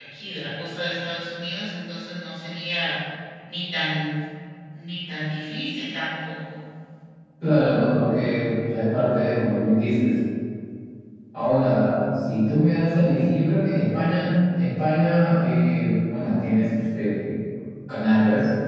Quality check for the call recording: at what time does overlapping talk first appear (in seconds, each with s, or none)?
none